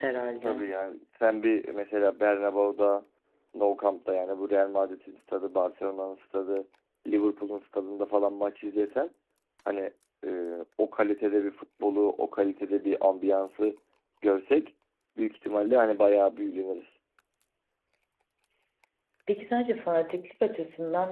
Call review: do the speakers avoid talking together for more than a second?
Yes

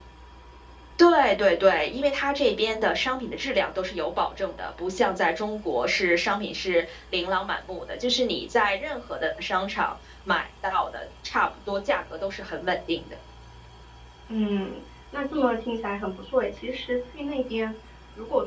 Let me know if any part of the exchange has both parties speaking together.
No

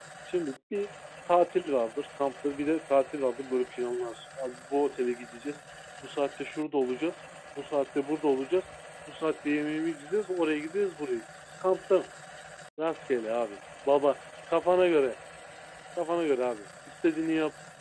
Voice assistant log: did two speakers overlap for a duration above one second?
No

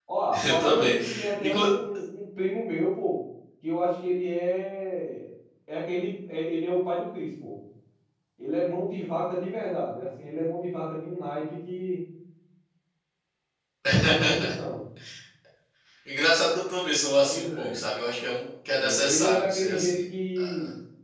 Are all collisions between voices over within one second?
No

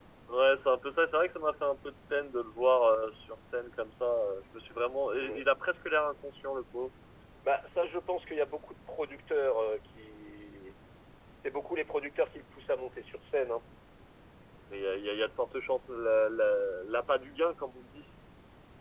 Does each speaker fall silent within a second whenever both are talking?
Yes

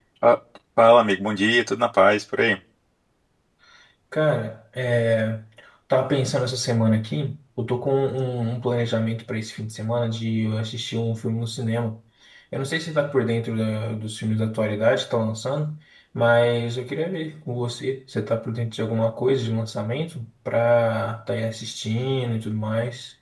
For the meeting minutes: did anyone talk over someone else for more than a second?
No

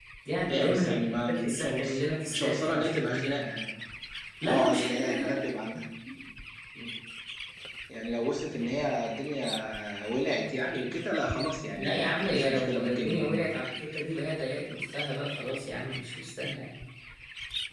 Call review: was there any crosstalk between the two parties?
Yes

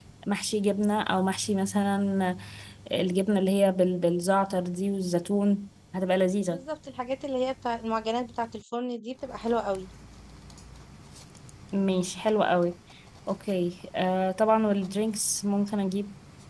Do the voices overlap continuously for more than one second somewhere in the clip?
No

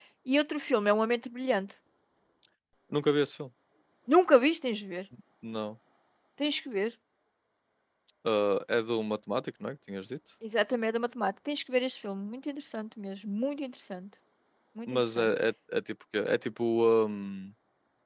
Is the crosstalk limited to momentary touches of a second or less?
Yes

